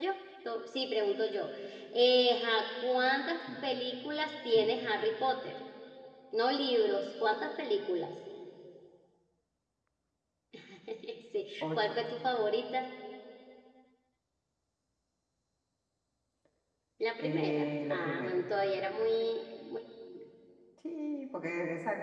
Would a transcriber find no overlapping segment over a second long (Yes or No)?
No